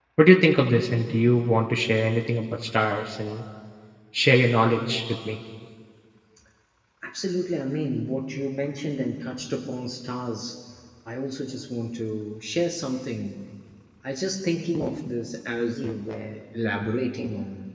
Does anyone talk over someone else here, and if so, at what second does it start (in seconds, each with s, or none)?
none